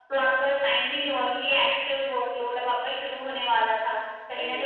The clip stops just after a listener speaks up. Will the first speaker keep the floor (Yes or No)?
Yes